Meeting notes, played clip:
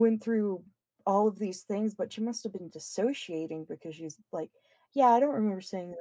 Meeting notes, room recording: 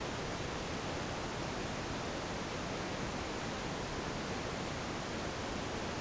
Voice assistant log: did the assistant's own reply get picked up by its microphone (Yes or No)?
No